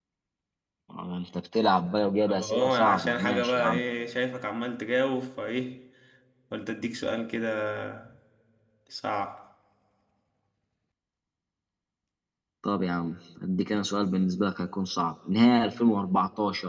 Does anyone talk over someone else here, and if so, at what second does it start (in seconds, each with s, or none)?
2.2 s